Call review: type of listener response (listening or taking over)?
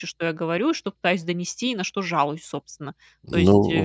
taking over